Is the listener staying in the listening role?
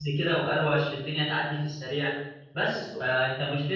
Yes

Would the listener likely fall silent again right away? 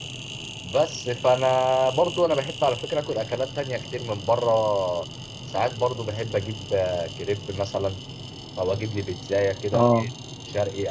Yes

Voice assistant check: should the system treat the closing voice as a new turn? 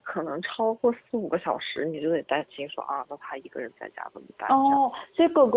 Yes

